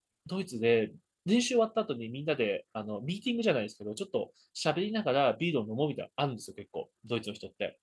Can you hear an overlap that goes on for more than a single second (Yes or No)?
No